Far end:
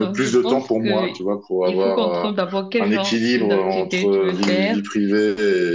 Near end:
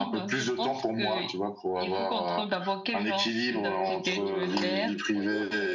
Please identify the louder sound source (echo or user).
echo